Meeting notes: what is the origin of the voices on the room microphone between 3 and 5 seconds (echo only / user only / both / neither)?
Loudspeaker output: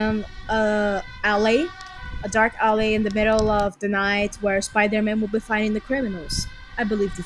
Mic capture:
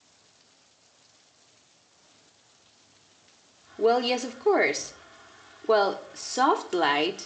user only